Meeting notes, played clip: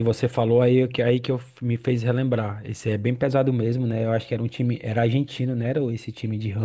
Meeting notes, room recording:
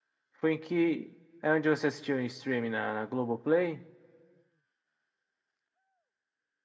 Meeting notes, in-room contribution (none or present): present